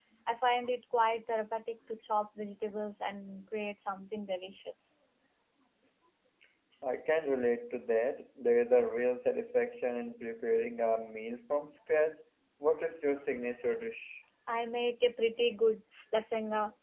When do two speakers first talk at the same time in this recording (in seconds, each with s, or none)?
none